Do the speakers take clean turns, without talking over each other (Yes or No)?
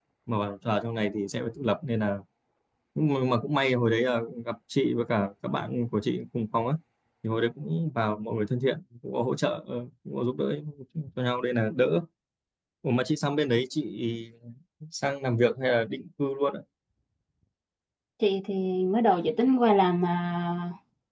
Yes